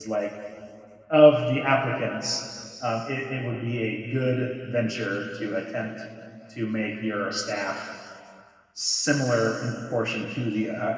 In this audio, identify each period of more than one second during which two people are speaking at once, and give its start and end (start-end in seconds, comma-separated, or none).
none